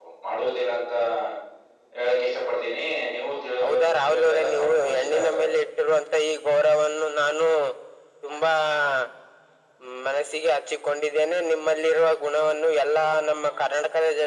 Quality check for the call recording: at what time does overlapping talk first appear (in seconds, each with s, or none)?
3.6 s